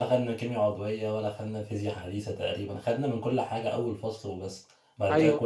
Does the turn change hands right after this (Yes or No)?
Yes